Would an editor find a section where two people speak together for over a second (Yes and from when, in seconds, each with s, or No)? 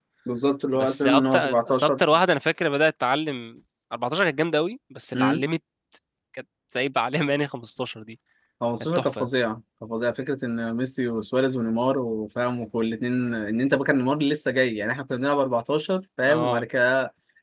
Yes, from 0.8 s